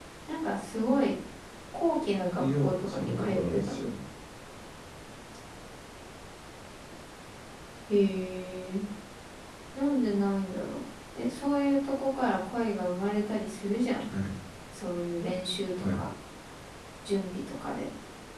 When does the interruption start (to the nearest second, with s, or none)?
2 s